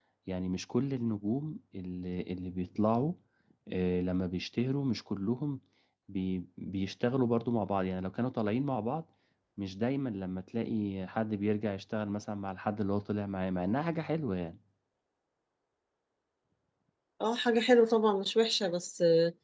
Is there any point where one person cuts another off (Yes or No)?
No